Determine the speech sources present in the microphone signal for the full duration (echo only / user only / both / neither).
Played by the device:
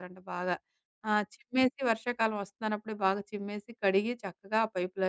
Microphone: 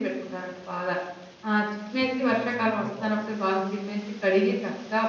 both